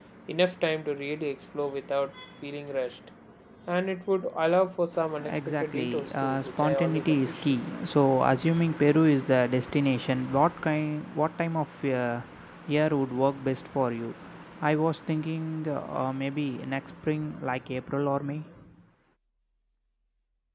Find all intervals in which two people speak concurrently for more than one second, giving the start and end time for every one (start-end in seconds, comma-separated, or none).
5.3-7.6